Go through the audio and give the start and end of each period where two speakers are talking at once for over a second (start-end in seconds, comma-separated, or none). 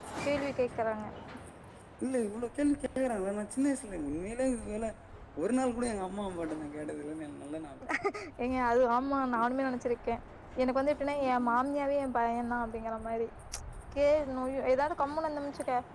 none